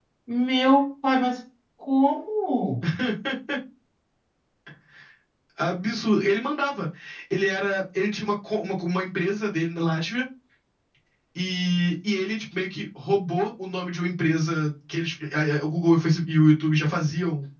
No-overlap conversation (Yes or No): Yes